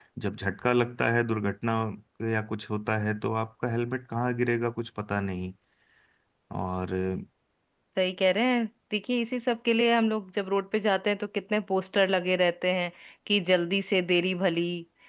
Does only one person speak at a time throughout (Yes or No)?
Yes